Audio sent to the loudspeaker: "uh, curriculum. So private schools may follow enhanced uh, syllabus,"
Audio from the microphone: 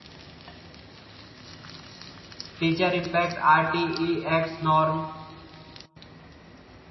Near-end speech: present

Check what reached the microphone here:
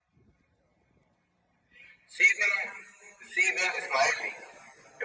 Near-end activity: none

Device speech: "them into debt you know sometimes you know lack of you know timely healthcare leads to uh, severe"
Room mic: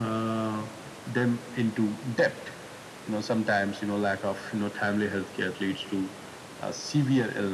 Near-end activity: none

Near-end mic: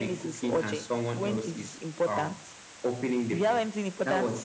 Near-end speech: none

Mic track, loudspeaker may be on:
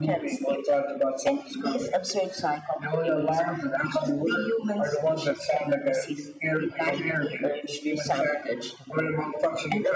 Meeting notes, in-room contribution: none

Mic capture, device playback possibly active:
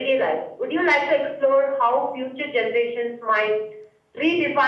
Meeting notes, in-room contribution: none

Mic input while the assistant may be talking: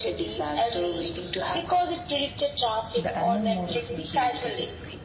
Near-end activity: present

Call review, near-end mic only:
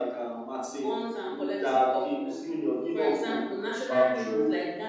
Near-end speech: none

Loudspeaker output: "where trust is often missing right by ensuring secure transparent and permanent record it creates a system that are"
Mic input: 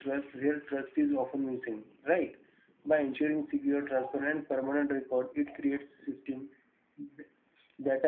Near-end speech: none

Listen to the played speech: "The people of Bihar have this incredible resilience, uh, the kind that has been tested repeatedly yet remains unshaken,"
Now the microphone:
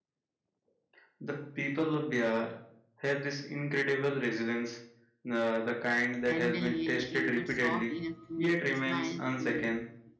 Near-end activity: present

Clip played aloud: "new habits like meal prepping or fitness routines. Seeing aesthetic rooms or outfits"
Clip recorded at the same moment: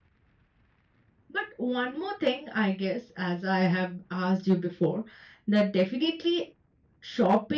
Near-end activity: present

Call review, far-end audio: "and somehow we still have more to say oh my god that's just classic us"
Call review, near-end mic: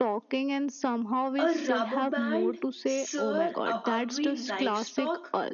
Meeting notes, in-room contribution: present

